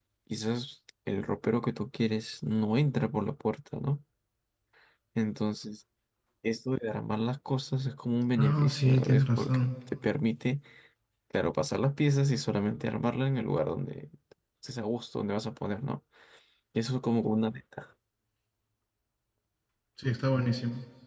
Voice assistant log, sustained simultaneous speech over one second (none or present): present